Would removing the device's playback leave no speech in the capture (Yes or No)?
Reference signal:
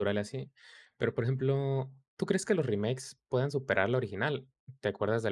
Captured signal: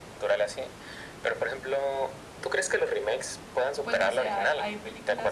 No